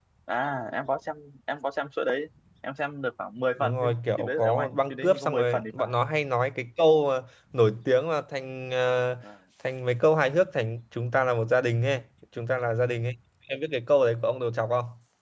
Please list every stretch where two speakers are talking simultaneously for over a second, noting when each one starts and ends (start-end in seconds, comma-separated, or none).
3.6-5.9